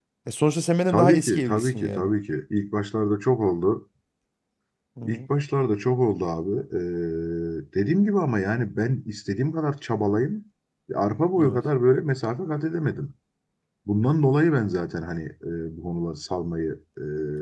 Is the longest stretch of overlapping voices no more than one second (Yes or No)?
No